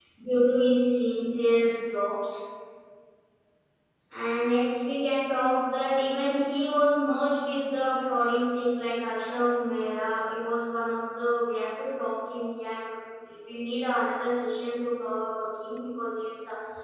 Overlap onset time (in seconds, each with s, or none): none